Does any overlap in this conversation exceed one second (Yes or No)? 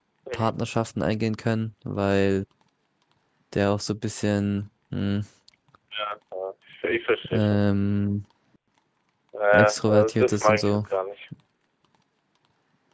Yes